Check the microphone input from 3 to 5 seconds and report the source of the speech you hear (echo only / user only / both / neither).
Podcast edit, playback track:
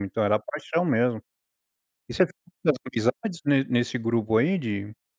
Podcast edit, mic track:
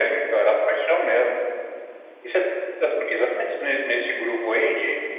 echo only